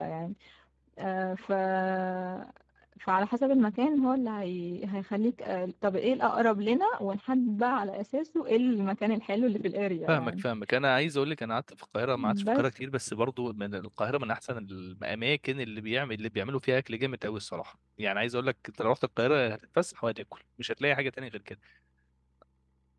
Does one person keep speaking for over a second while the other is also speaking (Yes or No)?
No